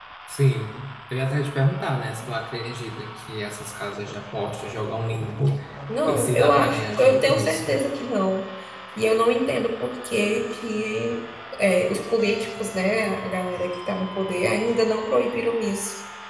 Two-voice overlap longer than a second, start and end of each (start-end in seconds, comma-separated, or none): 6.1-7.7